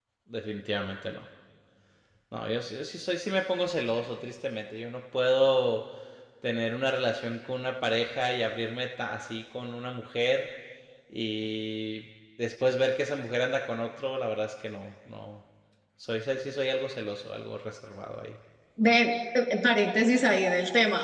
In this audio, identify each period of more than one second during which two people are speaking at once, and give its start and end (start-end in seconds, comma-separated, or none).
none